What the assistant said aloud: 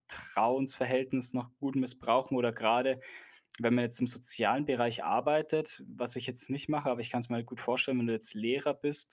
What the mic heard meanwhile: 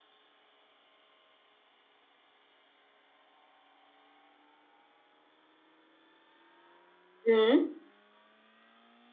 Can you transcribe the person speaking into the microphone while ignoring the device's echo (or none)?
Mhm.